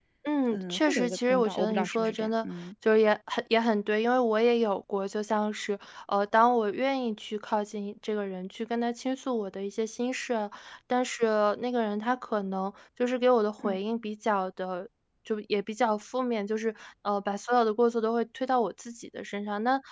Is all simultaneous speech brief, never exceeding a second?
No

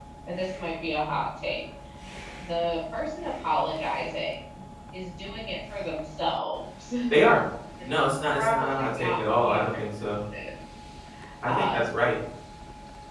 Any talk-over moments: Yes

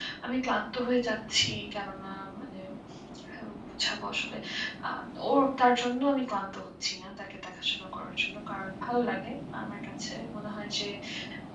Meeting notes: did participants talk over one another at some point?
No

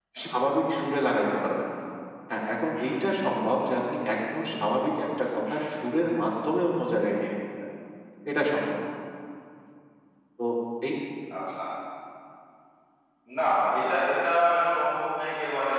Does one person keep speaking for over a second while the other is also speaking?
No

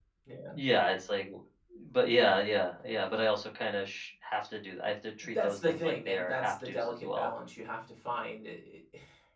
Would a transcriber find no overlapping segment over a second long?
No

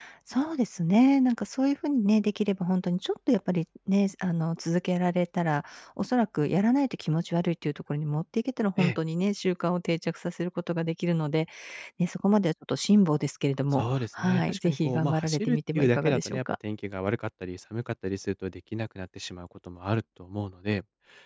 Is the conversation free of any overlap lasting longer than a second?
No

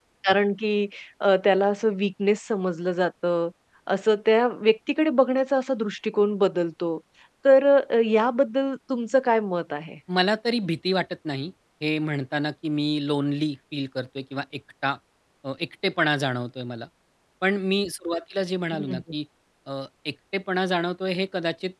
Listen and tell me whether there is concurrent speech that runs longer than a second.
No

